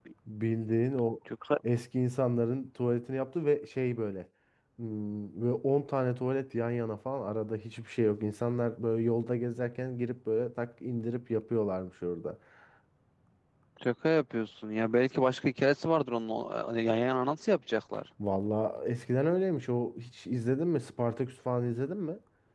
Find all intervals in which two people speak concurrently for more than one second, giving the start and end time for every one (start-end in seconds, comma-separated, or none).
none